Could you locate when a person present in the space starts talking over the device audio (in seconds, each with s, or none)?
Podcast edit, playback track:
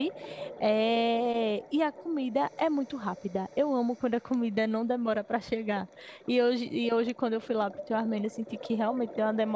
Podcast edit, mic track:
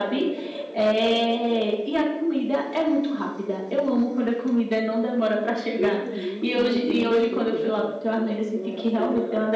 5.7 s